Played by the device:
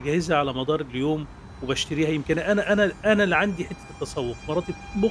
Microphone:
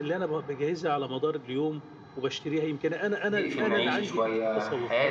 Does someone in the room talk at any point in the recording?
Yes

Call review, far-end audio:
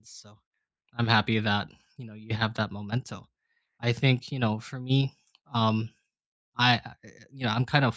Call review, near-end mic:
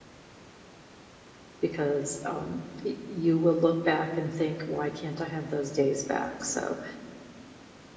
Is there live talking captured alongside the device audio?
Yes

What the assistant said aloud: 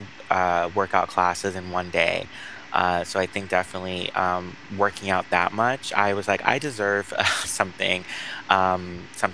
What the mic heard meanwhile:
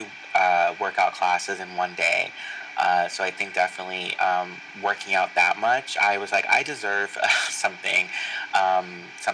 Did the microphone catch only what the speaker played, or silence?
Yes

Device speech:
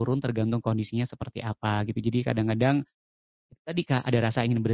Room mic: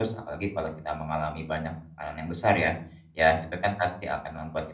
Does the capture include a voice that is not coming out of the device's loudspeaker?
Yes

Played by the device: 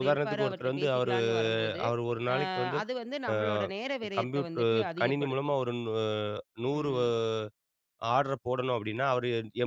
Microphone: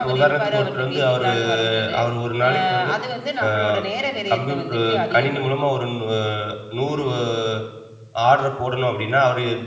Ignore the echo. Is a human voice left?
No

